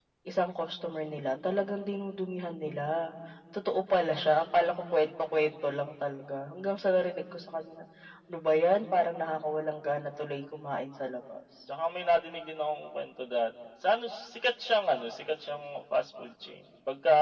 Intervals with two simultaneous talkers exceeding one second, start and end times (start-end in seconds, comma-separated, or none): none